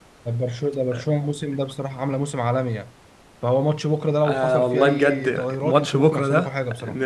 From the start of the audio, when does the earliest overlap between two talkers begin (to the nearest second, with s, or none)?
4 s